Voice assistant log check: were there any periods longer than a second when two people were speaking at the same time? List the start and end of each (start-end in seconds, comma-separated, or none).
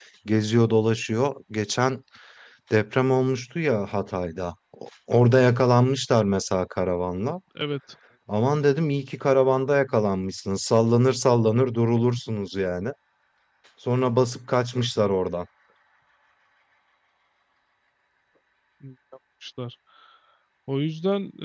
none